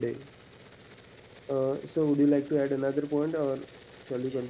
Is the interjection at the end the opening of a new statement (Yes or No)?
Yes